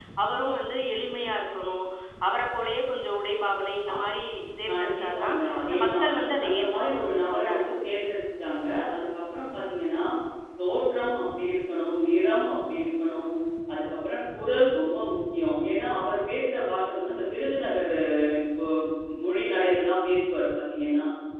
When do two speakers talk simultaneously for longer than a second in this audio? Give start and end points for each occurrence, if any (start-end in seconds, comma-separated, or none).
4.7-6.0, 6.4-7.9